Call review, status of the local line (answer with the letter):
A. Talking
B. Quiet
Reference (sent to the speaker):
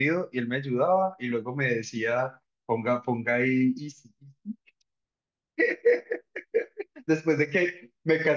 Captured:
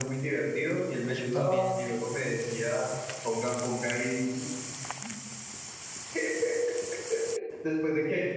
A